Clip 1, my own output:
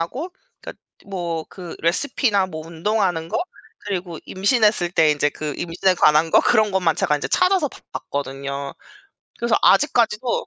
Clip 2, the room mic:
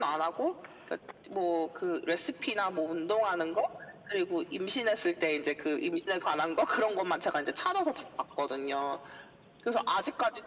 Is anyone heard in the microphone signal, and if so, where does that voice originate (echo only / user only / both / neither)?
echo only